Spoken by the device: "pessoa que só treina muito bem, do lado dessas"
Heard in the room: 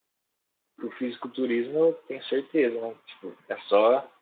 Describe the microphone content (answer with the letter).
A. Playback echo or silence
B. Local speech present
B